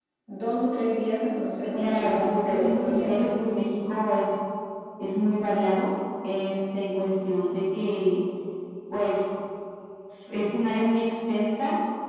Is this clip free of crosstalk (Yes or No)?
No